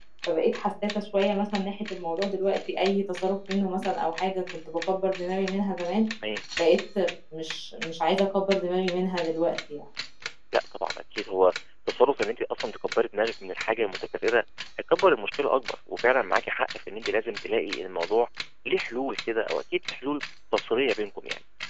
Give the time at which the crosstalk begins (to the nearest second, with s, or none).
none